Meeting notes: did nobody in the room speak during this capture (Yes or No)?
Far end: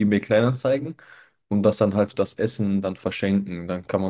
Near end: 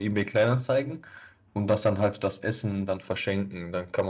Yes